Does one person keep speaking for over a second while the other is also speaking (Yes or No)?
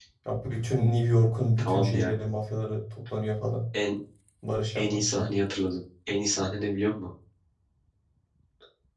No